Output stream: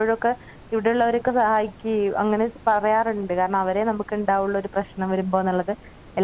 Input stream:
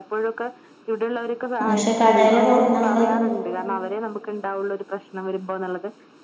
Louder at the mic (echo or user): user